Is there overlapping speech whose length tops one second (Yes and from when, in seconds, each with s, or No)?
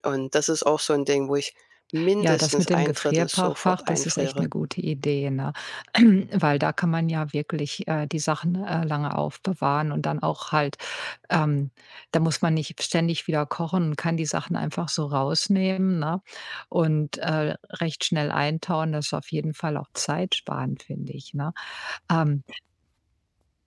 Yes, from 2.2 s